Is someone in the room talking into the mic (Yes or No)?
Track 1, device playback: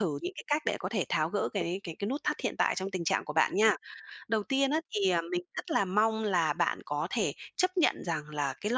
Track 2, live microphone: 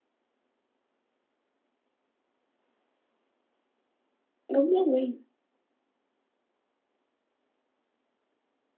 Yes